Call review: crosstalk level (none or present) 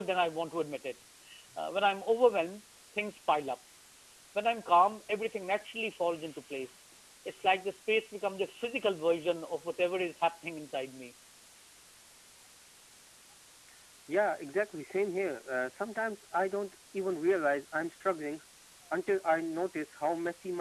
none